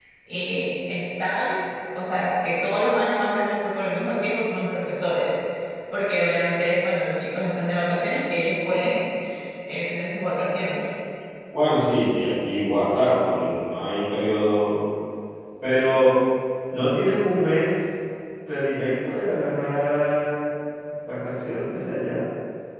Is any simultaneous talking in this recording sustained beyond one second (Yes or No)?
No